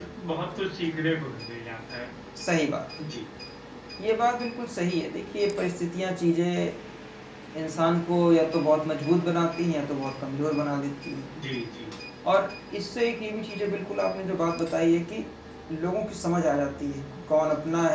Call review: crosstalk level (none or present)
none